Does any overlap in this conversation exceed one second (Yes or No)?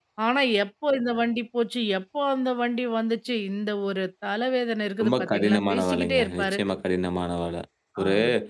Yes